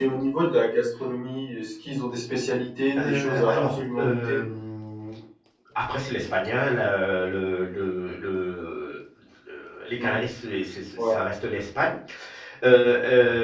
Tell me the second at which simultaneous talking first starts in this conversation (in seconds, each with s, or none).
3.0 s